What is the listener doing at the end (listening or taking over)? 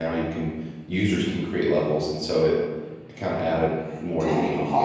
taking over